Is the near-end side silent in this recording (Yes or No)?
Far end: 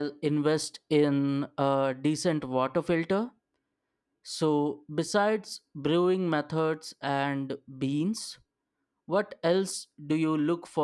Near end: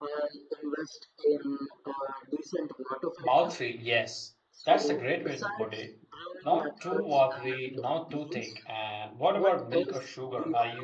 No